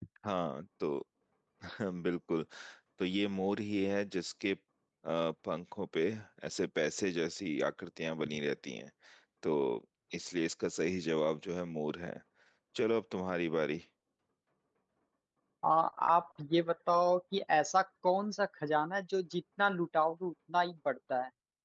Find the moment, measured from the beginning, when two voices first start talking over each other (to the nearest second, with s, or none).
none